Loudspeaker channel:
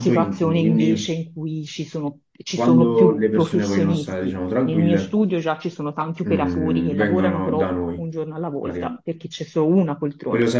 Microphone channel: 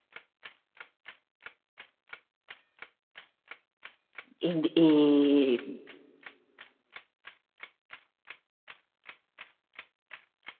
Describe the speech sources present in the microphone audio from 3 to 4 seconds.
neither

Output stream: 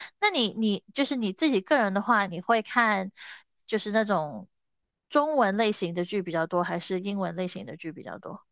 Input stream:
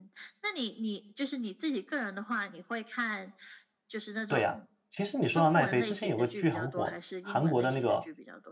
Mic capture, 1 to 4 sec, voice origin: echo only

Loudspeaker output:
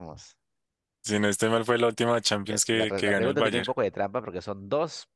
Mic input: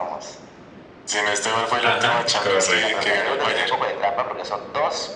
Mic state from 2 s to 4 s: both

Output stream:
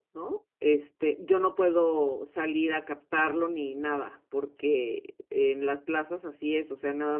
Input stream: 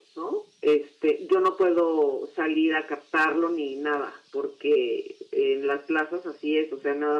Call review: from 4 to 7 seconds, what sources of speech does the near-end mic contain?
echo only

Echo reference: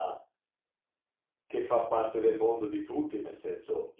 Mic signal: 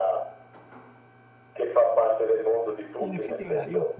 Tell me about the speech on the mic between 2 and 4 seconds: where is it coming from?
both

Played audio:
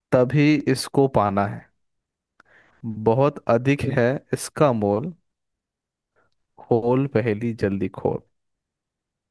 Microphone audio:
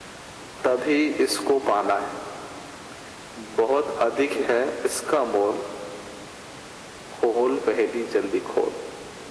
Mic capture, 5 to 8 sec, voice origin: echo only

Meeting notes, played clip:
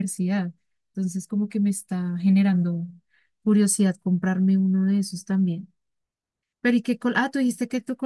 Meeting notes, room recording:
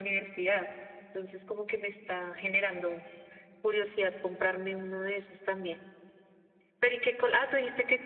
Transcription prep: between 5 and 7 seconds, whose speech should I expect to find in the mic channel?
echo only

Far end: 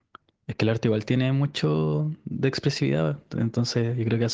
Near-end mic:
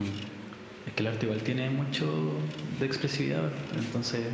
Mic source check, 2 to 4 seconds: echo only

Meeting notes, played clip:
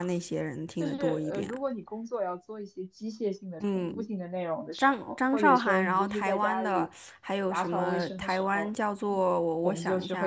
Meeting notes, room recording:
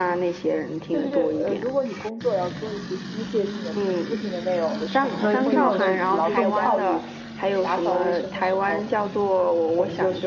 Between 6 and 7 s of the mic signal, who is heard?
both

